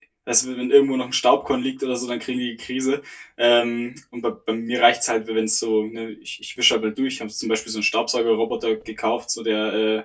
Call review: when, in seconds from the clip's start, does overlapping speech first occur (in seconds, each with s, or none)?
none